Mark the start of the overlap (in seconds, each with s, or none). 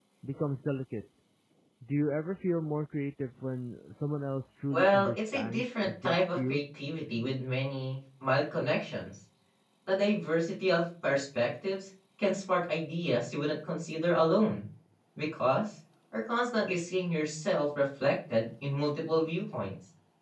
4.7 s